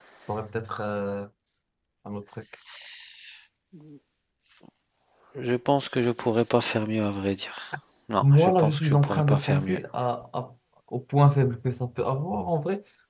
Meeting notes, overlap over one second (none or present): present